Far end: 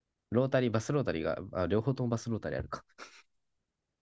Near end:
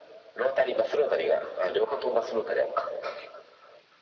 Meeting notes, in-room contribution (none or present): none